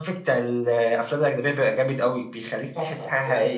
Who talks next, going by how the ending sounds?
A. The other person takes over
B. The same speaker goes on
A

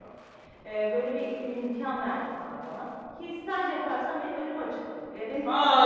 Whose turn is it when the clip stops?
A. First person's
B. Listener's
B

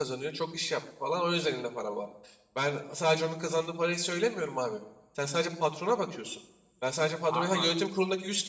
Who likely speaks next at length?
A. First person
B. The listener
A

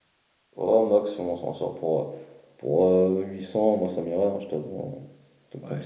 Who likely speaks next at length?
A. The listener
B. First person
A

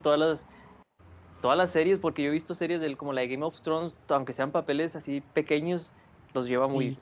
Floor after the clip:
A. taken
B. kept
A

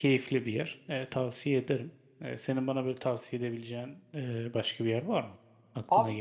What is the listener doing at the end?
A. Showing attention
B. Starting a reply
B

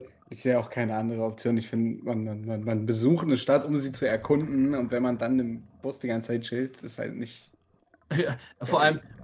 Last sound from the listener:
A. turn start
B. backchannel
A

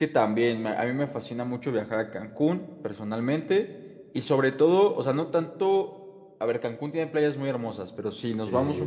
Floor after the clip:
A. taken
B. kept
B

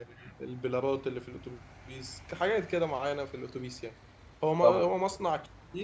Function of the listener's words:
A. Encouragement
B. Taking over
A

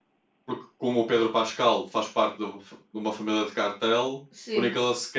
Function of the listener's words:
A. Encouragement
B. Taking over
A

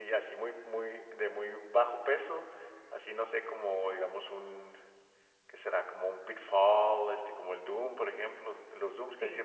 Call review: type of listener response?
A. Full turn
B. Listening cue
B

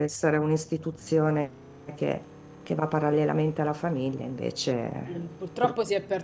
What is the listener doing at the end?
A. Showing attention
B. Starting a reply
B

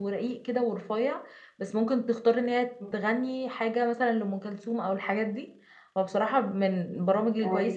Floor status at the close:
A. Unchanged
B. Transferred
A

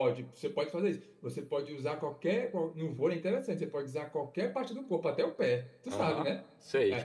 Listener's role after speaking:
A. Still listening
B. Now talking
B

